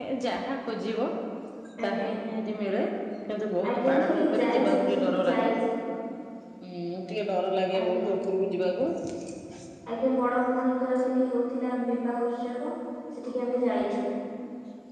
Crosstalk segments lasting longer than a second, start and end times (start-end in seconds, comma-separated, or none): 3.7-5.5